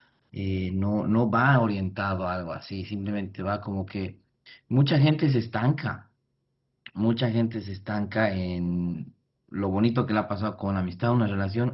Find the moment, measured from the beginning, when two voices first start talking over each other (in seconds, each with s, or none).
none